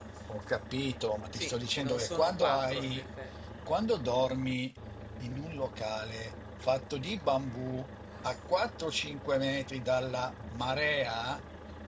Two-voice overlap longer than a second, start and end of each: 1.3-3.0

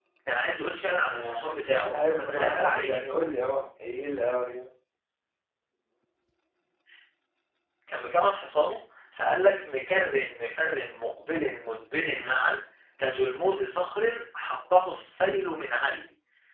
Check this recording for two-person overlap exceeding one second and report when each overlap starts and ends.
1.1-3.0

